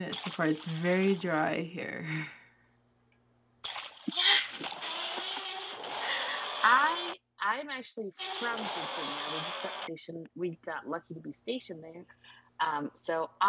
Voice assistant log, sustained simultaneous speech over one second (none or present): none